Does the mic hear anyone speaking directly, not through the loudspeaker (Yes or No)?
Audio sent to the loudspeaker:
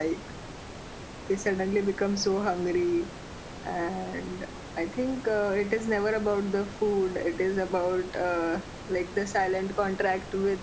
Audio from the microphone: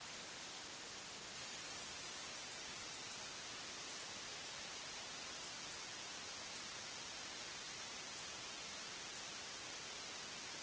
No